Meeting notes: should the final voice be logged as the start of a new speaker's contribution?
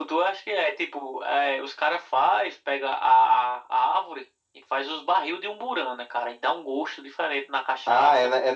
Yes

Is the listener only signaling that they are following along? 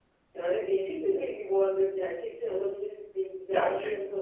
No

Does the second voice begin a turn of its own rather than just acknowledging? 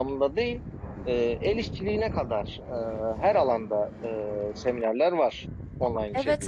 Yes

